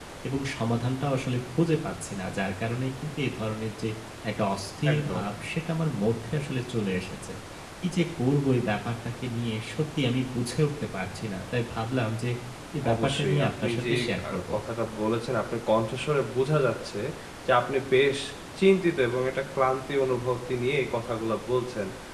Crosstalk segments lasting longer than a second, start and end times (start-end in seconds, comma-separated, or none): 12.9-14.4